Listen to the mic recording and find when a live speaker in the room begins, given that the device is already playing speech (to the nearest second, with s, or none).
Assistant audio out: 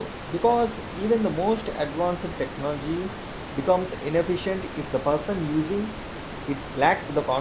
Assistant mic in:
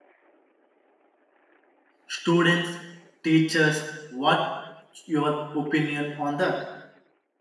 2 s